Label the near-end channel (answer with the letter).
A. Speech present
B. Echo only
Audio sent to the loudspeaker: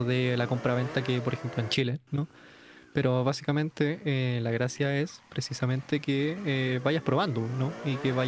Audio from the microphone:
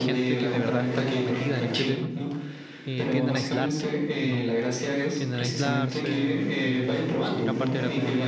A